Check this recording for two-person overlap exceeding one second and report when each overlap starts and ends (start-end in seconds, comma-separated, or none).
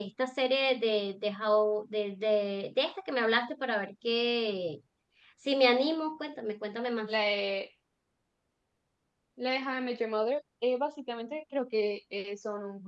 none